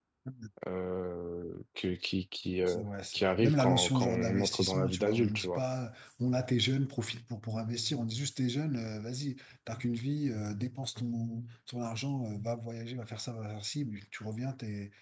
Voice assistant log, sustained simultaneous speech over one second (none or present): present